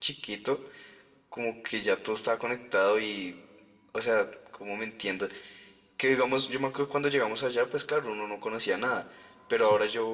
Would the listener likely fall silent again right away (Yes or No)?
Yes